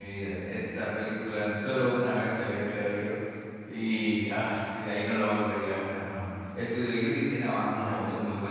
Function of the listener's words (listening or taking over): listening